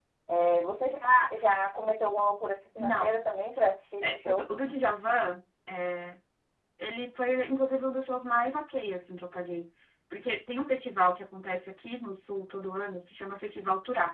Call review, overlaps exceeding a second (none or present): none